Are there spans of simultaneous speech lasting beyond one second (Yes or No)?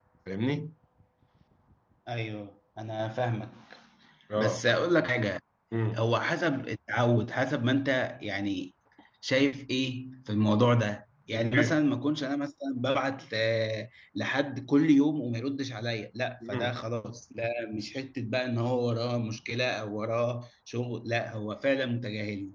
No